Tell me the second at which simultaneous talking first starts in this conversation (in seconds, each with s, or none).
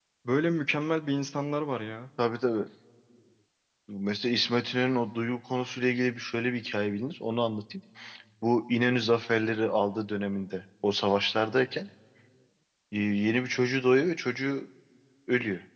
none